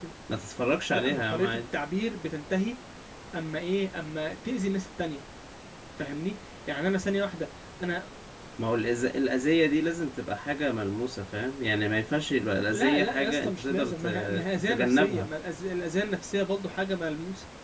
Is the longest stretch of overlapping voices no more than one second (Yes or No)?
No